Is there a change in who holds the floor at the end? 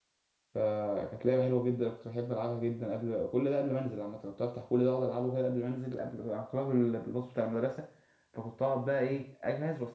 No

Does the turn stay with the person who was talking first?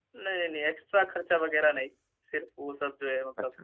No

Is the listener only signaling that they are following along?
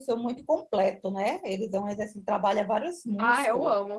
No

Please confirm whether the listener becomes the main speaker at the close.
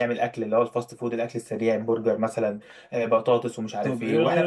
Yes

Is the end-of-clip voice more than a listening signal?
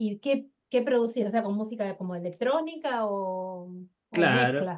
Yes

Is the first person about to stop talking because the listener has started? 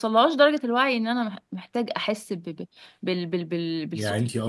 Yes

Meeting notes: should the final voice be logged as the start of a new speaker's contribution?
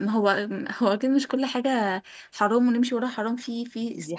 Yes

